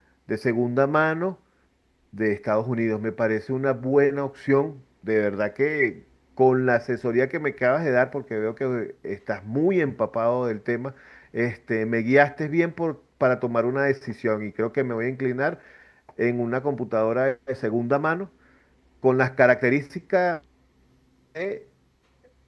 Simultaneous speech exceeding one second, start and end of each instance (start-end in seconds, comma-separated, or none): none